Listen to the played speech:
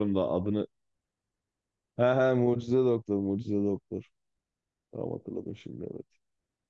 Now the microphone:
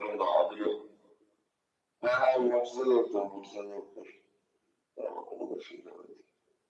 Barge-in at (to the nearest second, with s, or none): none